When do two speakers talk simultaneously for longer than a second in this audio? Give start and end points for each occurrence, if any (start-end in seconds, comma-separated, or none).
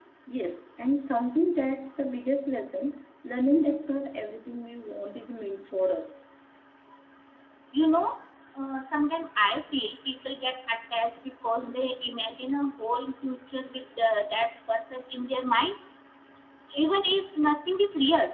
none